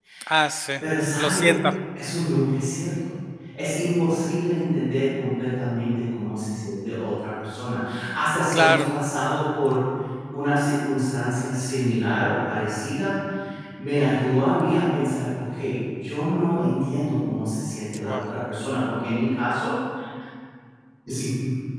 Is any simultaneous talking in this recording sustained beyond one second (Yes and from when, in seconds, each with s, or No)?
No